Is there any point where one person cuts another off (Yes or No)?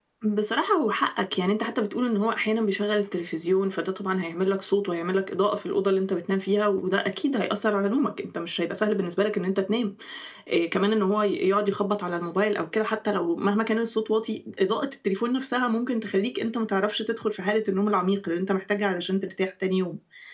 No